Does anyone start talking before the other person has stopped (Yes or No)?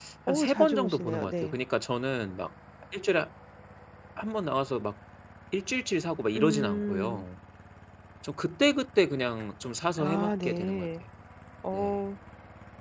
Yes